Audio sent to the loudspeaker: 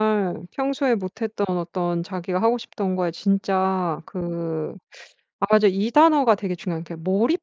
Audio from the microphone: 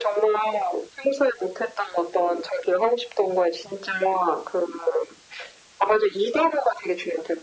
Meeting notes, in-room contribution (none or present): none